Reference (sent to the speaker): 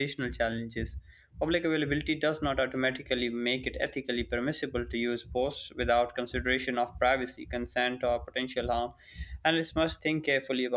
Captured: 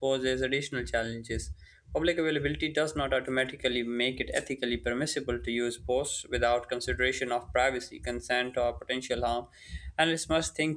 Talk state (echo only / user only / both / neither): echo only